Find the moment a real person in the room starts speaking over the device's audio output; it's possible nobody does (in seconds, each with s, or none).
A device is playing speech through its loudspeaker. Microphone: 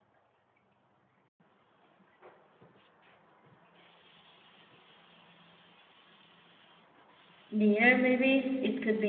7.5 s